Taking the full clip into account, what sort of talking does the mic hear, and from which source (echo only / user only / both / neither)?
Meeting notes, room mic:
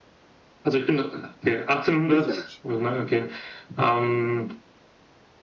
both